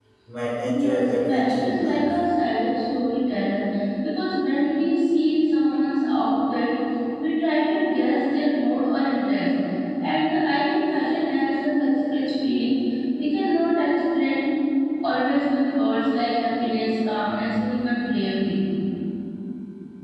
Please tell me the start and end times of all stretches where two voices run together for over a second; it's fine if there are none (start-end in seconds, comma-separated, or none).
0.7-2.2